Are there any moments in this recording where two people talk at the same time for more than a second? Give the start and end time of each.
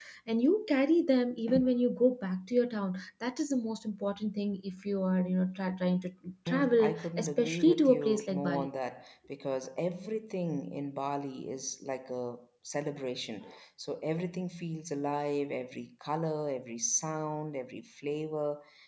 6.5-8.7

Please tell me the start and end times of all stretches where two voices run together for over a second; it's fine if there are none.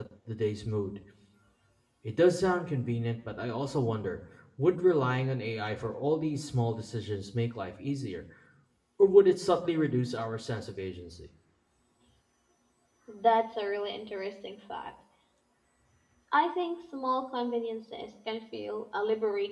none

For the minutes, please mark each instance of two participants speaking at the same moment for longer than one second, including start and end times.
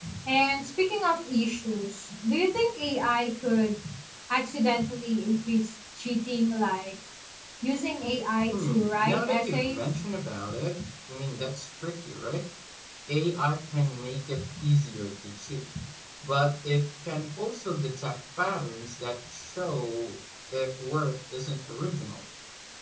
8.5-9.8

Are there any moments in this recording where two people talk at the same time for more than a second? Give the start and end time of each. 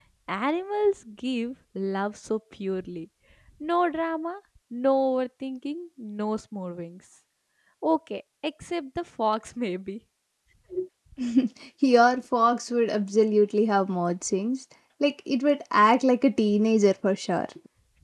none

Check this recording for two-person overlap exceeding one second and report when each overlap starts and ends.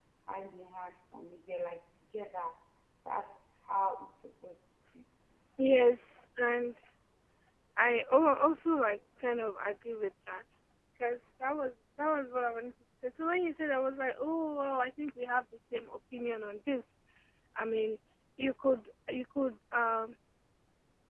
none

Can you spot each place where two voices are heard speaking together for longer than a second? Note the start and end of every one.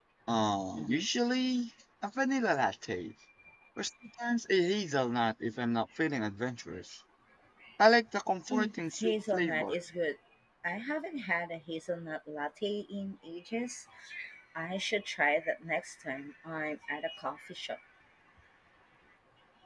8.5-9.8

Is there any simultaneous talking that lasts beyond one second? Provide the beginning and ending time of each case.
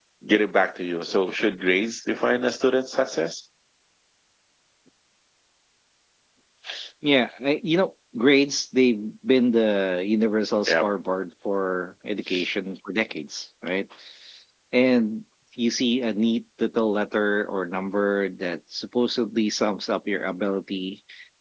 none

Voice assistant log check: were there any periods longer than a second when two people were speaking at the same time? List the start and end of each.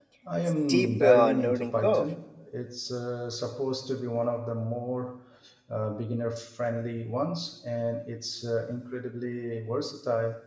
0.7-2.1

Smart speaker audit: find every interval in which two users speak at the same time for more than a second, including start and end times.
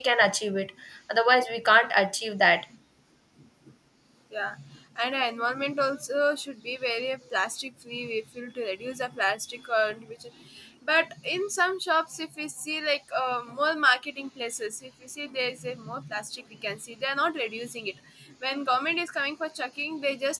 none

